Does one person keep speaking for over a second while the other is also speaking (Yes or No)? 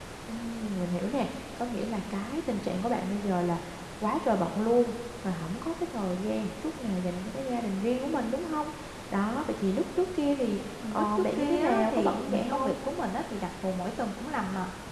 Yes